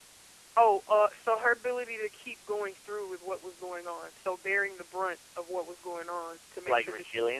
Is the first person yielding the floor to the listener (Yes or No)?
No